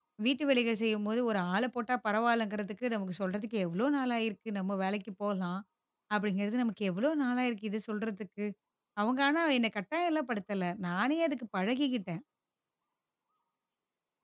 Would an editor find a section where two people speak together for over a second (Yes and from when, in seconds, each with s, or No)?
No